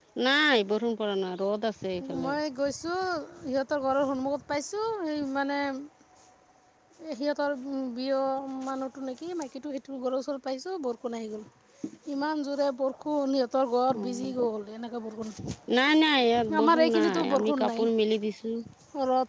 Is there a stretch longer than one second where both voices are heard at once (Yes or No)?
Yes